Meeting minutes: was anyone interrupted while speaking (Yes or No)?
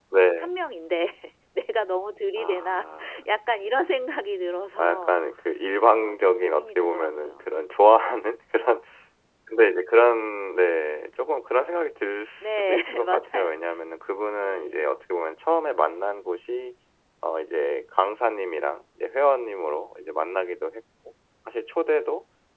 Yes